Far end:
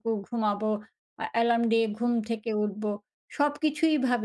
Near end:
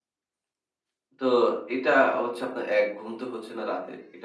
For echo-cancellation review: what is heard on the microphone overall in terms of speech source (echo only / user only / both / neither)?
user only